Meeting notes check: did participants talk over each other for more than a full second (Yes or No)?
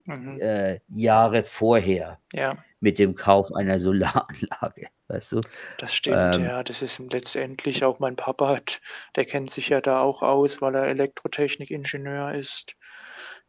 No